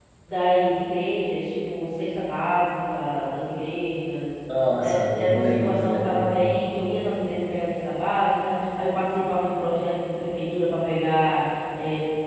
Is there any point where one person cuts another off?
Yes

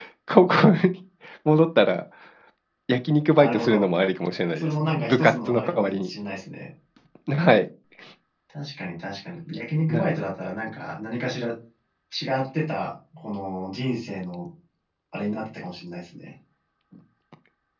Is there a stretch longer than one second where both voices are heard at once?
Yes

